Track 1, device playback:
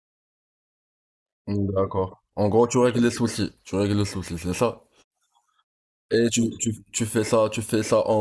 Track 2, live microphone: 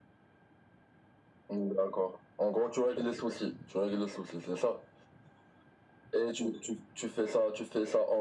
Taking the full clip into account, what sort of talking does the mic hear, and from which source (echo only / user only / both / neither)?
echo only